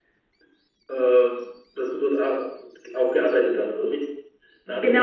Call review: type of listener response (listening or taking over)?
taking over